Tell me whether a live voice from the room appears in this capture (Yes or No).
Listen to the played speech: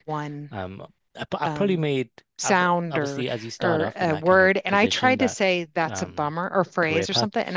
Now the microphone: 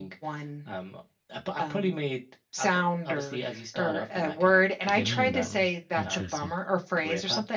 Yes